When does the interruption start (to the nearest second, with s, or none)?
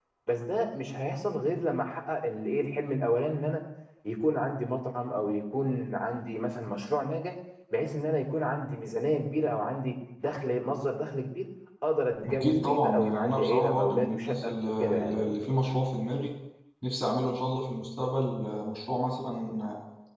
12 s